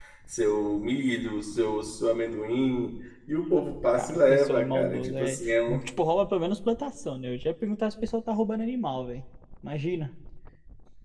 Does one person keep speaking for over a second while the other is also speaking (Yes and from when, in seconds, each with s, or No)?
Yes, from 3.9 s